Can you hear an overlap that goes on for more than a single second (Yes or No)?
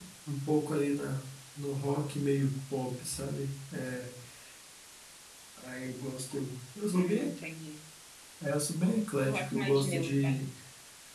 Yes